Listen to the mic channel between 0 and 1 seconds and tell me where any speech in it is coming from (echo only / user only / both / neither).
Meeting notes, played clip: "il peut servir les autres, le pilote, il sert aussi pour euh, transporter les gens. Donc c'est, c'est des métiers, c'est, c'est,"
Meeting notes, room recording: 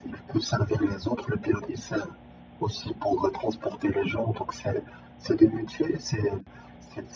echo only